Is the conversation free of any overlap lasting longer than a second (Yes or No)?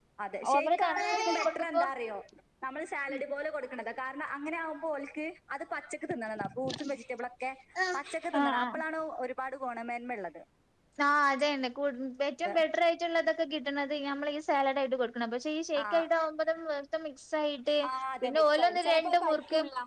No